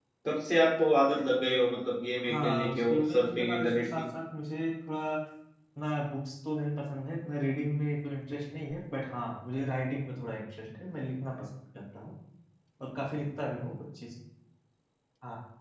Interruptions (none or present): present